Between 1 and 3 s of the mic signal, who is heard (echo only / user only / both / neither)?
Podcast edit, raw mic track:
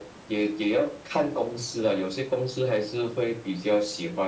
echo only